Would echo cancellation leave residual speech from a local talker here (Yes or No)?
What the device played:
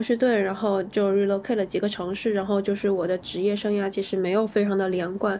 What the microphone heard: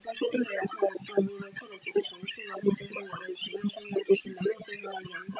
No